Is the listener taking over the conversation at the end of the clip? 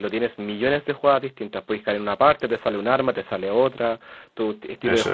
No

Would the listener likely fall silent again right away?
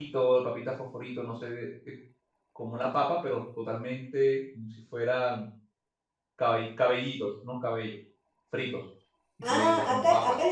No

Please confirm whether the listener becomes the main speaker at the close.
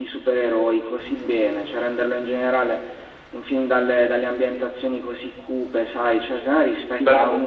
No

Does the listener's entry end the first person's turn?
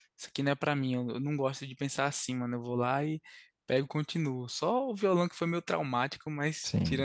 Yes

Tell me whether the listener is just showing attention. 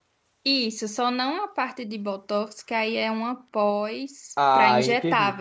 No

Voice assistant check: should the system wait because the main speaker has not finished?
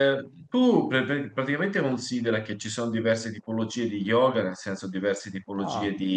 Yes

